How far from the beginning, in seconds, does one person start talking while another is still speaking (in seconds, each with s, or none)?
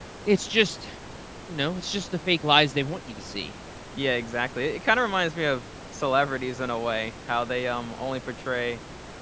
none